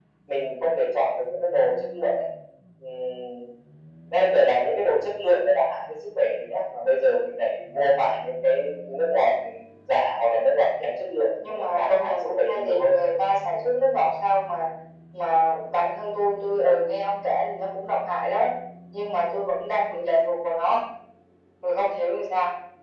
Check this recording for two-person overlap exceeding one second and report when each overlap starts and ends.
11.4-13.1

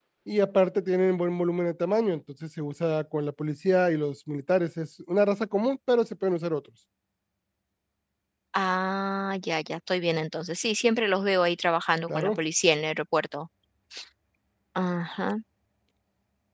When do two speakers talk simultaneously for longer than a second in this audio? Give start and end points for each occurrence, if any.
none

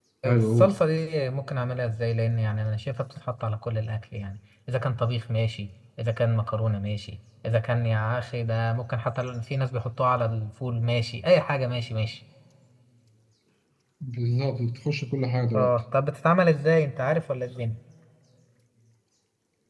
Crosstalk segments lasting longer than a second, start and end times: none

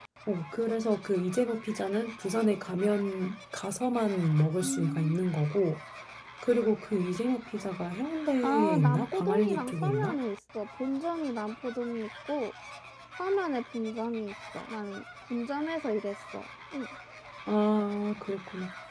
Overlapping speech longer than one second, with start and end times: 8.4-10.2

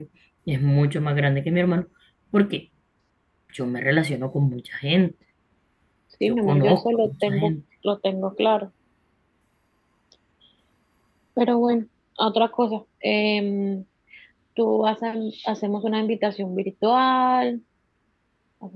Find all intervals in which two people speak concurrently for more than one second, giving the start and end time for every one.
6.3-7.5

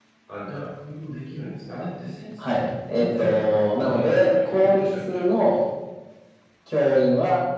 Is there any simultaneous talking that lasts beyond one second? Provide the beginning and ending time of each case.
2.4-5.2

